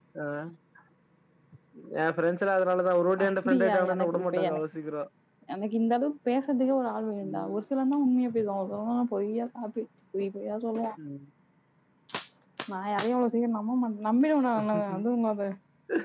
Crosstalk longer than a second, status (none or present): present